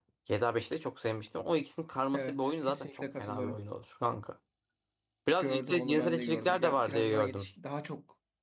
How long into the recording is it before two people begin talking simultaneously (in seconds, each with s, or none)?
2.1 s